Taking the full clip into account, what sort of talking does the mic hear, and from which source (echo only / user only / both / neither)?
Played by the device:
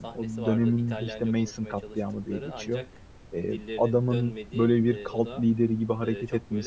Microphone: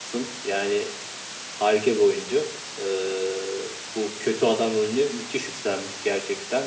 user only